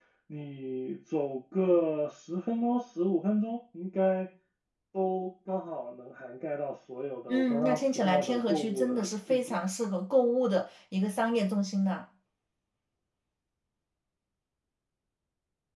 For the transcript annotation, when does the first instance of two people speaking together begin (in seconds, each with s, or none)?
7.3 s